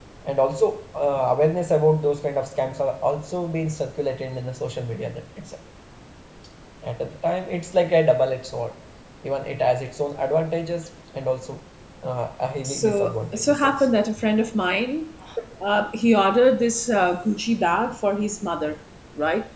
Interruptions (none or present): present